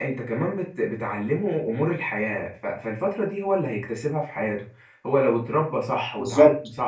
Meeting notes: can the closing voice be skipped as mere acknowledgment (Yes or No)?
Yes